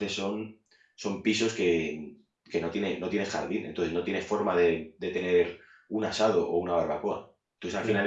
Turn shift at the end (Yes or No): No